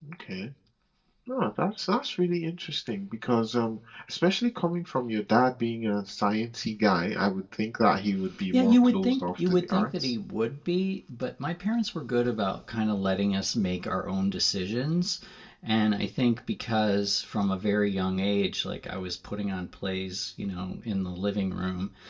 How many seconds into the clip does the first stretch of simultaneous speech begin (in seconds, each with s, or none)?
8.4 s